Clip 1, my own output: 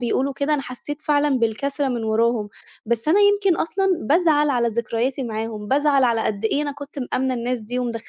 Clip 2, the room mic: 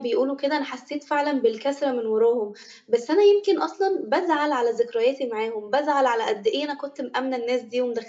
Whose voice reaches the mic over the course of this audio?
echo only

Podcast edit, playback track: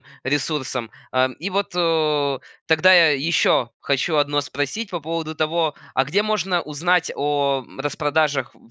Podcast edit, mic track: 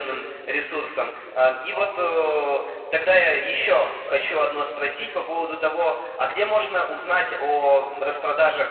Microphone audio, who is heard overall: echo only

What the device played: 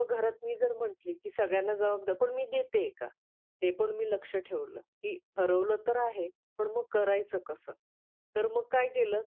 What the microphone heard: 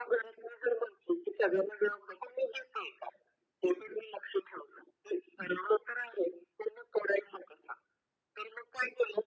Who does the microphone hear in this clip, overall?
echo only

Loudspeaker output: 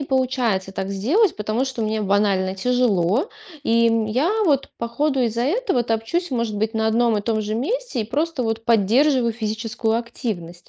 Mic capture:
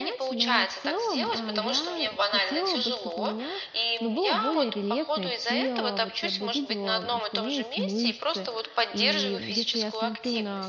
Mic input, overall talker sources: both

